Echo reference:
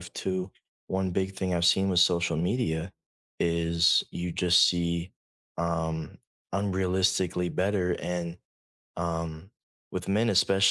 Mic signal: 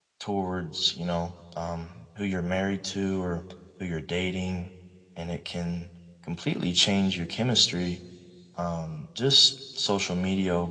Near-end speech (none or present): present